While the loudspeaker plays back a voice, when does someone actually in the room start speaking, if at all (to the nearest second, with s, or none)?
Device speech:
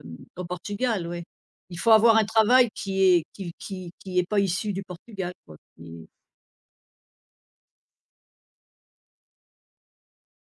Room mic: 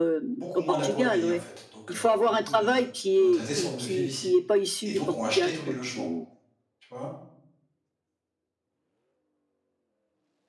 0 s